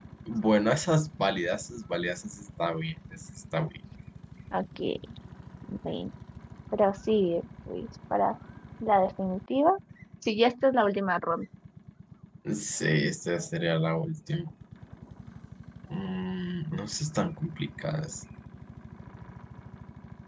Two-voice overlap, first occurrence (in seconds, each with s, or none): none